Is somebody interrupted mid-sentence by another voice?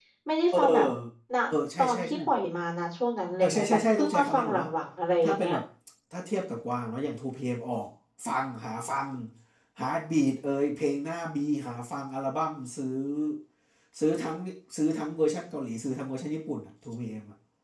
Yes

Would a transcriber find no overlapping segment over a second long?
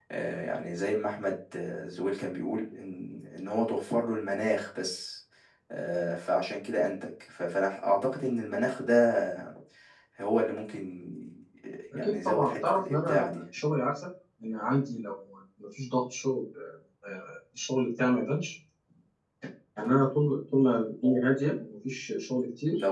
No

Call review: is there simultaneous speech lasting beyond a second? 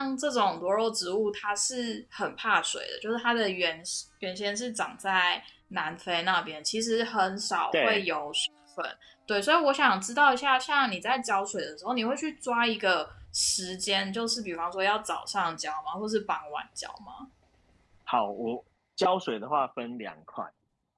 No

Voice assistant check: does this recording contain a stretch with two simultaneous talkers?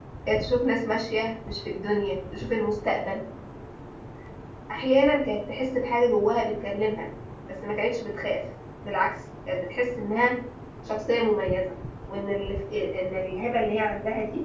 No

